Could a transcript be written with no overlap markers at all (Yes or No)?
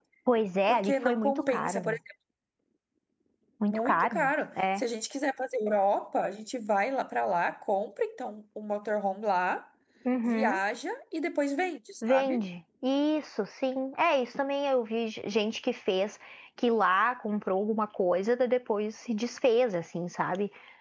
No